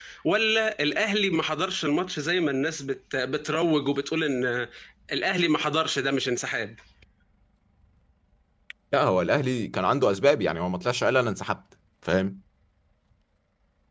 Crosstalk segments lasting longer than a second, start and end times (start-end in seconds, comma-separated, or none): none